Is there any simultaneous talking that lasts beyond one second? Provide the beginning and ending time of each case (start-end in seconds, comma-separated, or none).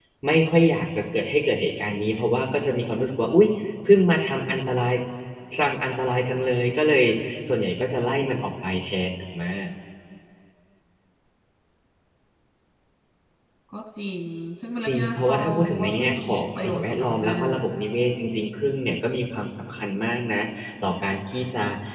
14.8-17.6